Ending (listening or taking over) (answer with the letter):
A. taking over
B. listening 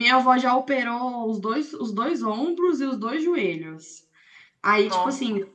B